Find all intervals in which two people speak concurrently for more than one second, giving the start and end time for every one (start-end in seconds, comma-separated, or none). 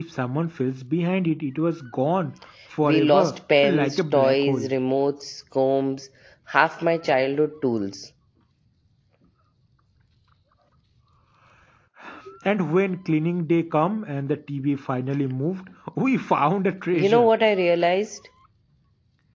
2.8-4.7